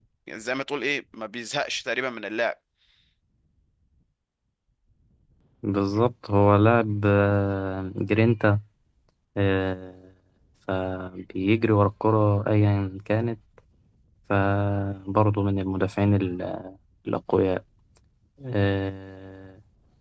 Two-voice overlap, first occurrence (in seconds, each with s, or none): none